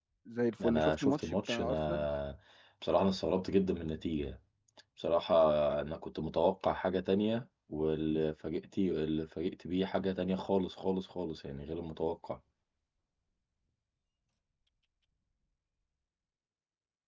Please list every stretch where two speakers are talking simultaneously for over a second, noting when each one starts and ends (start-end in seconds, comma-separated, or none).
0.6-2.1